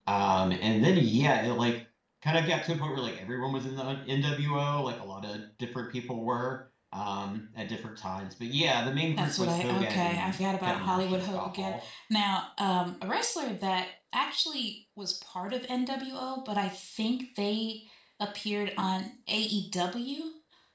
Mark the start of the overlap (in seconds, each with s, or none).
9.2 s